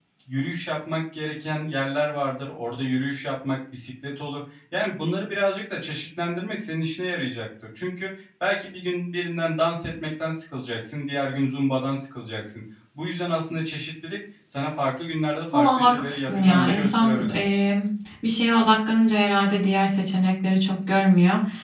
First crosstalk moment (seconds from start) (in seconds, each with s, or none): 15.5 s